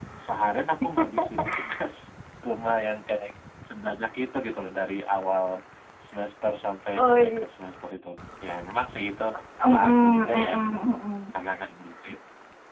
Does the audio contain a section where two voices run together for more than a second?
Yes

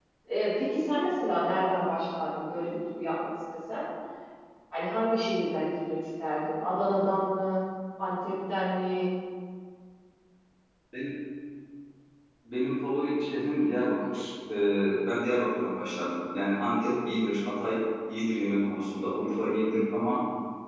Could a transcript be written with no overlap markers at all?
Yes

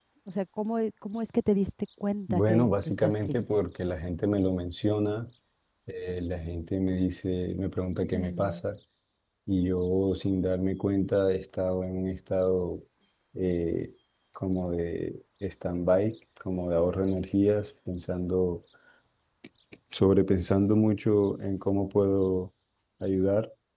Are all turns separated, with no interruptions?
No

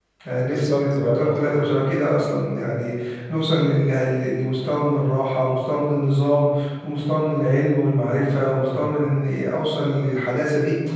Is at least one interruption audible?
Yes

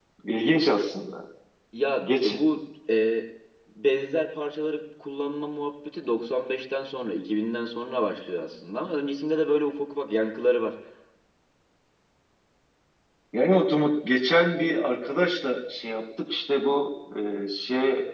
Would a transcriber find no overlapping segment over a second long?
Yes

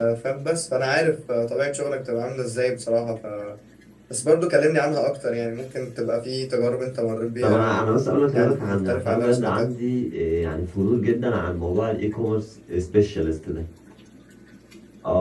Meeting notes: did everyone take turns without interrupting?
No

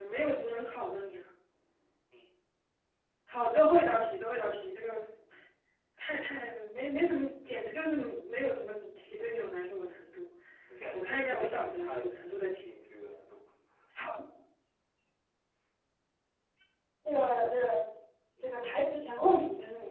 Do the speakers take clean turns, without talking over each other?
No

